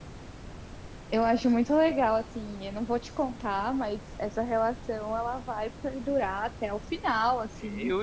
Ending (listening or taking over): taking over